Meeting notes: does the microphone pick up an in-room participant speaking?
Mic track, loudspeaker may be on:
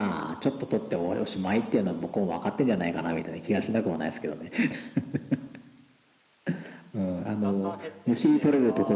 Yes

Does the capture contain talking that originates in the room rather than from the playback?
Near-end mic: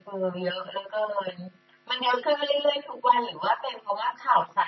No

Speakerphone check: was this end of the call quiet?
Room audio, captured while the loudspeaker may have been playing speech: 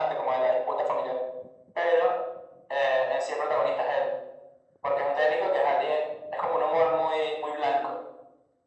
Yes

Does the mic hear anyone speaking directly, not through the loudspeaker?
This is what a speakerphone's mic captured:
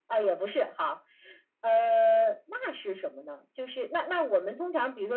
No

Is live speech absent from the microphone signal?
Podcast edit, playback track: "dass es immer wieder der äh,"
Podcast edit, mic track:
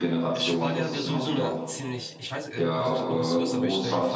No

